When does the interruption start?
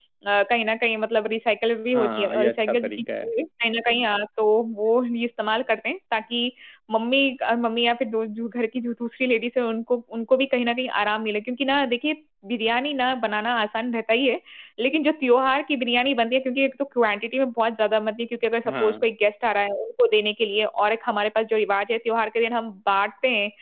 1.9 s

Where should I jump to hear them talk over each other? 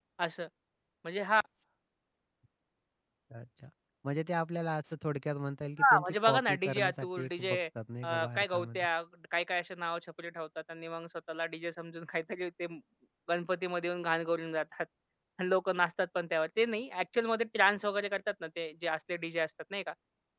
5.8 s

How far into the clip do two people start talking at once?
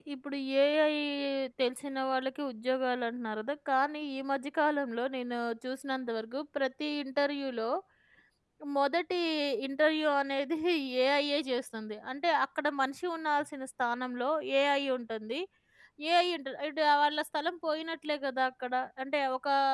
none

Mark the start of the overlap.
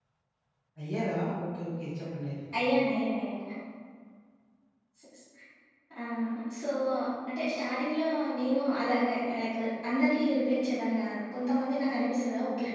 none

